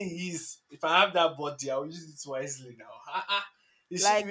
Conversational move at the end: listening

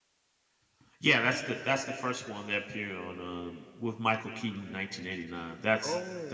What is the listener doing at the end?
listening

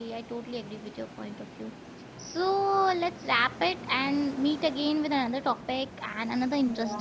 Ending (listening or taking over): taking over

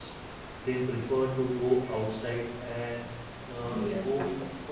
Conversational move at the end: listening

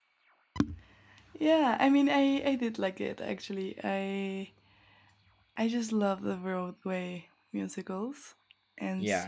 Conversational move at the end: listening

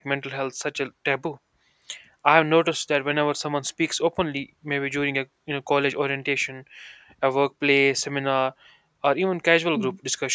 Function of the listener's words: listening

